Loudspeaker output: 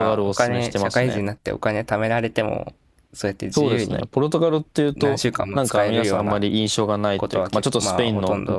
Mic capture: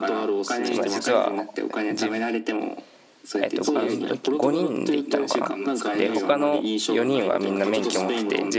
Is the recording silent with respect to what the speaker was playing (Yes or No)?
No